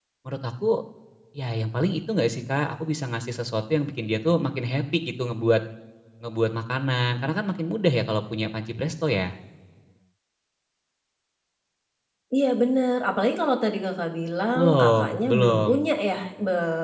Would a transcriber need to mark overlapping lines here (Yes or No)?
Yes